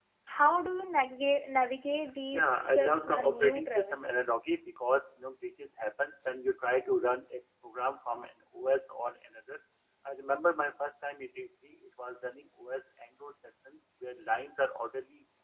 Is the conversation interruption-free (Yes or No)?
No